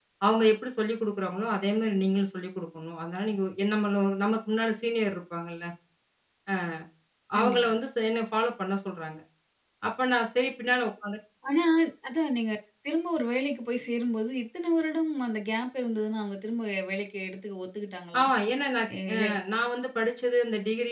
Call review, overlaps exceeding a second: none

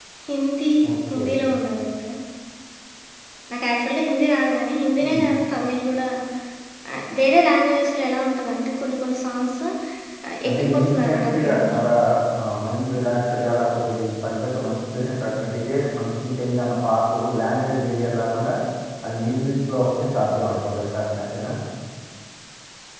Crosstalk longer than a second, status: present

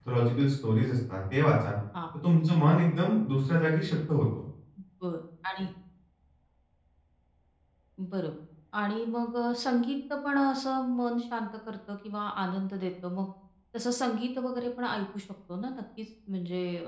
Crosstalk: none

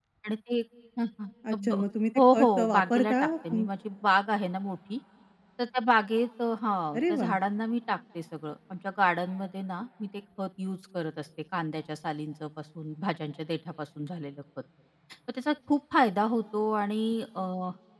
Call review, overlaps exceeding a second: present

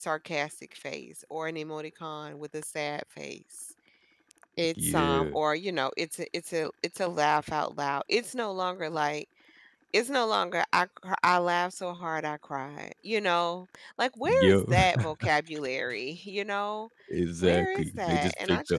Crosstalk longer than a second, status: present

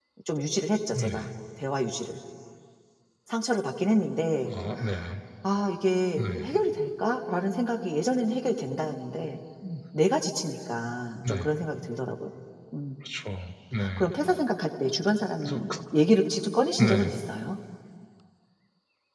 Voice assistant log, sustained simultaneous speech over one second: none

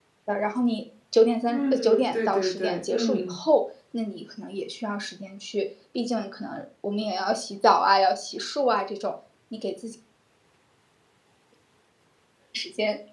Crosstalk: present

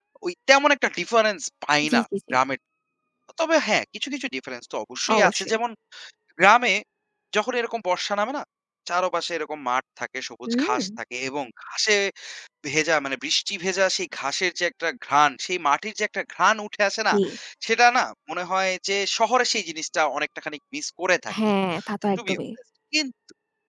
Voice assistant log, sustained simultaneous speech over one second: none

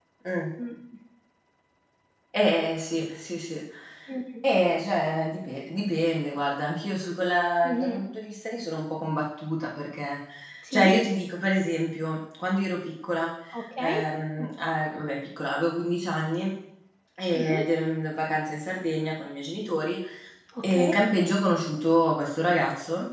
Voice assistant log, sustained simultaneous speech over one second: none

